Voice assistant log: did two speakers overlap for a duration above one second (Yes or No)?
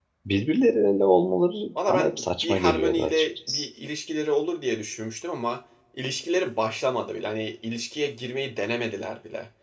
Yes